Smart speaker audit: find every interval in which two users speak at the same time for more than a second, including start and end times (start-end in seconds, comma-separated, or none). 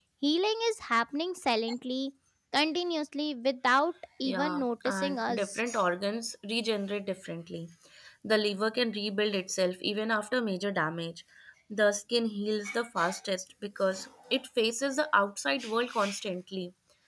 4.2-5.5